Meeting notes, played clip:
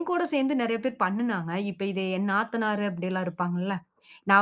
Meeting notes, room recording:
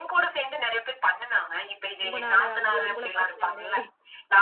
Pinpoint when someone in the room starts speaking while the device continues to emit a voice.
2 s

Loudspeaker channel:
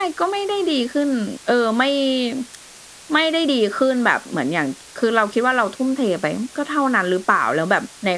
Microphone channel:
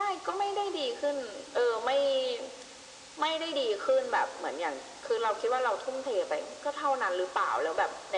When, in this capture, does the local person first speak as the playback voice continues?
none

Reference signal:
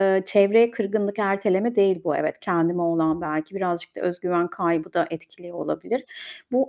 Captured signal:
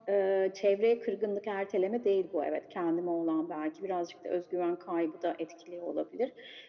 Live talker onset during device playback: none

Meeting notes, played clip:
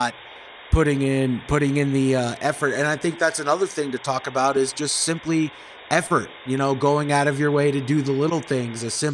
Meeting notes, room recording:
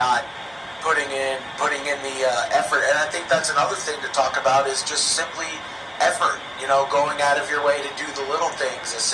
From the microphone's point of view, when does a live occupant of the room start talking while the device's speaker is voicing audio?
none

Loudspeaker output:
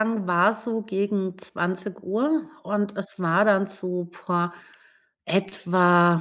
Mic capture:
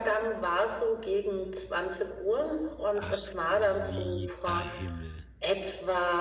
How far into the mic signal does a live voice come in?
3 s

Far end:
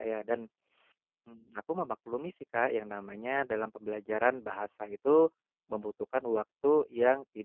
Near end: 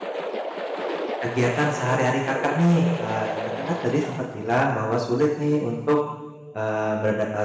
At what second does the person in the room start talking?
1 s

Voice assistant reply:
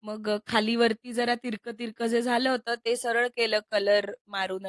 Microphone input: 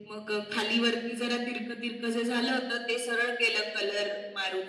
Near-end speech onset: none

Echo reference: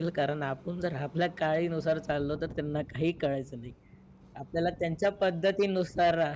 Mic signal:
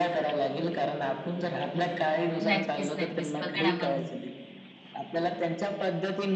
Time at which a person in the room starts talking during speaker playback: 2 s

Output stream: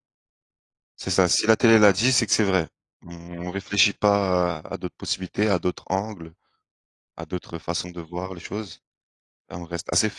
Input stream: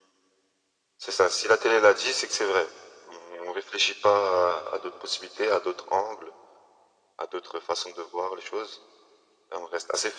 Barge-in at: none

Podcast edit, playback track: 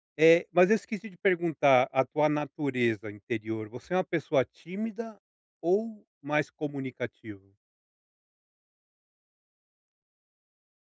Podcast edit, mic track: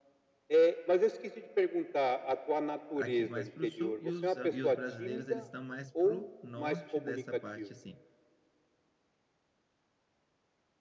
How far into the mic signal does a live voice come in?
3 s

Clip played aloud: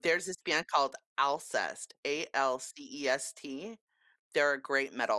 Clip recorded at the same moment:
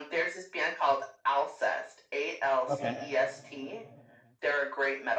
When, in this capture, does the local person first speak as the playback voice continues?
3 s

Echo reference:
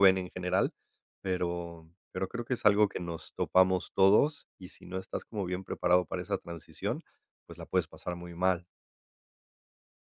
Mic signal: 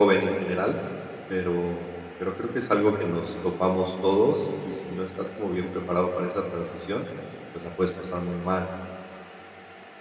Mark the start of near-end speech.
none

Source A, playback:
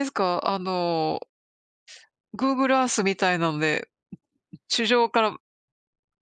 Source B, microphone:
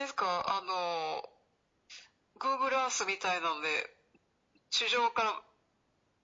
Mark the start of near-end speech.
none

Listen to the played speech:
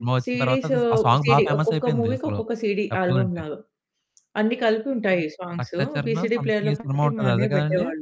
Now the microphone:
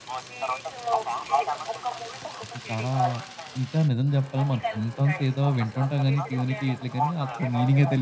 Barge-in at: 2 s

